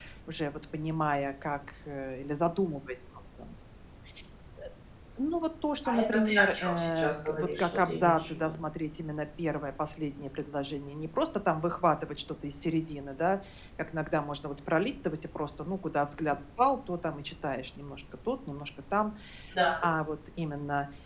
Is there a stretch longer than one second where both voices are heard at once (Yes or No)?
Yes